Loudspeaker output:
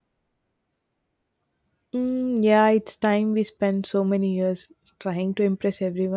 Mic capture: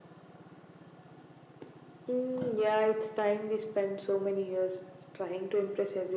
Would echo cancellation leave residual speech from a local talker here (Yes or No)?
No